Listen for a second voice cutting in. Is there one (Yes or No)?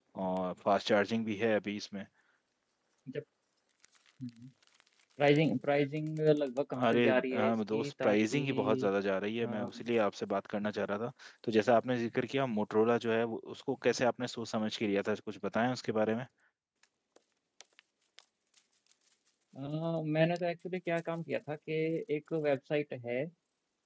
Yes